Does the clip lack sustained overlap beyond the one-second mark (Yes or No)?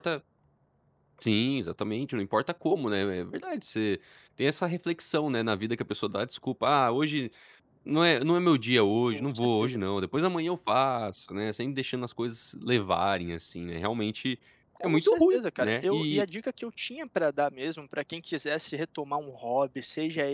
No